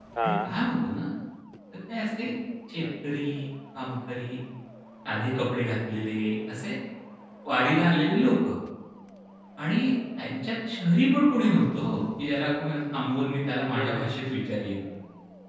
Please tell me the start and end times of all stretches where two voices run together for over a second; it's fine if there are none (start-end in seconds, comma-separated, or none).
none